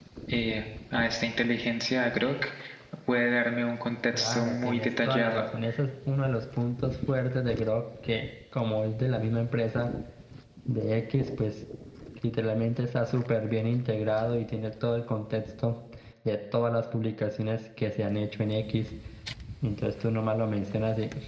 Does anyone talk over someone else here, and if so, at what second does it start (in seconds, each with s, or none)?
4.1 s